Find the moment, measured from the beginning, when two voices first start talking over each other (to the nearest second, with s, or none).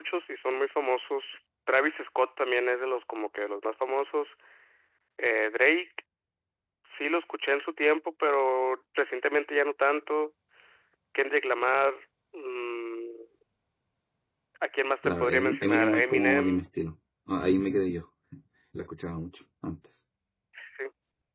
15 s